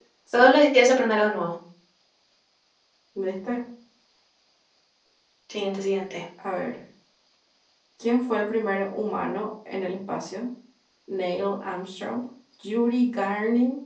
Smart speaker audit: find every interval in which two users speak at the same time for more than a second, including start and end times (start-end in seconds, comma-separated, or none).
none